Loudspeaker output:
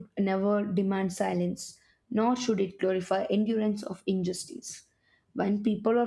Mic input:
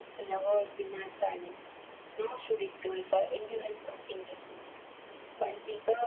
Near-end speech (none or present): none